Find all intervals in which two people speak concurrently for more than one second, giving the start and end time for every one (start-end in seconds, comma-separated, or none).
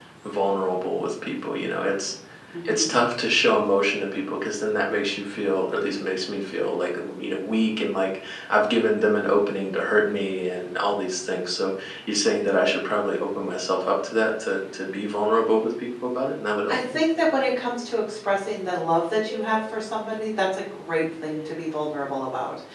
none